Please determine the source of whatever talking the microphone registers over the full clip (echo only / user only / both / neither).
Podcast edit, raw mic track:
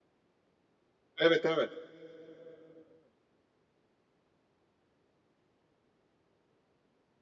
user only